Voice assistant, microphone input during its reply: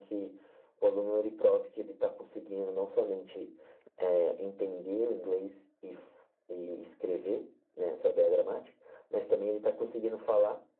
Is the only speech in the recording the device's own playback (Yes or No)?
Yes